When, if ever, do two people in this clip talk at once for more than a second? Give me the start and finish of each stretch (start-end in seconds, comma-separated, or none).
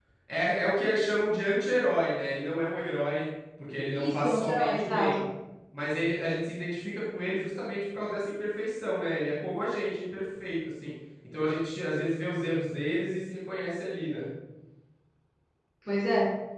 3.9-5.2